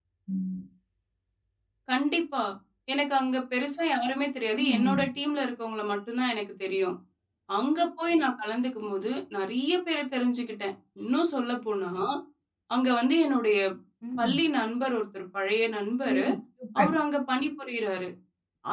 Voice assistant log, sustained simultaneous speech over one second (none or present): none